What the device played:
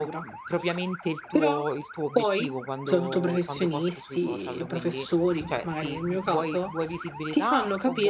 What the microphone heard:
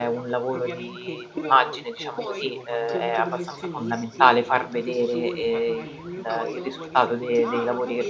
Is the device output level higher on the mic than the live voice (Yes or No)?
No